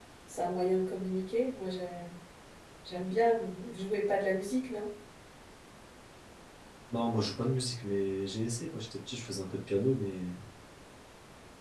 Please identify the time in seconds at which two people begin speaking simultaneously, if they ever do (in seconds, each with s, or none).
none